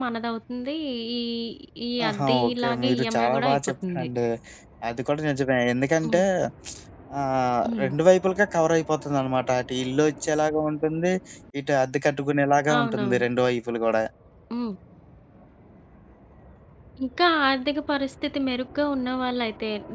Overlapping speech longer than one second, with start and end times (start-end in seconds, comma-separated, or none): 2.1-4.1